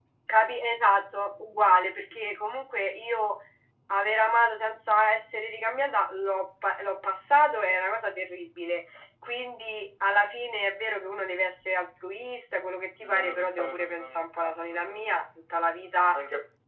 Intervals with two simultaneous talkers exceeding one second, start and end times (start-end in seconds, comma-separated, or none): 13.0-15.2